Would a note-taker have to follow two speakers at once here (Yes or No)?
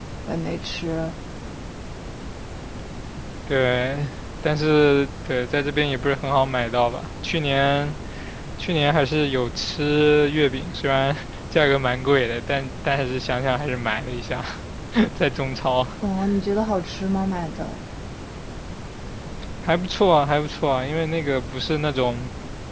No